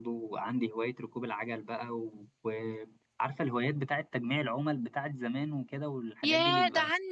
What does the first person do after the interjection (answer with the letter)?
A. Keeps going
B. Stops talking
B